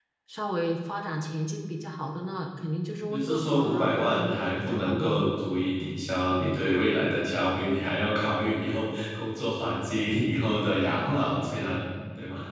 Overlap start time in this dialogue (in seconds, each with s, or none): 3.1 s